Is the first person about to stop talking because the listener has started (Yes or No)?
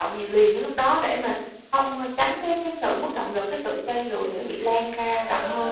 Yes